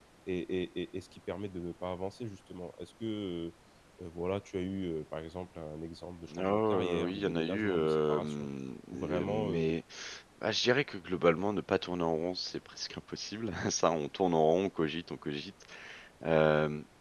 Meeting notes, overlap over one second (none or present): present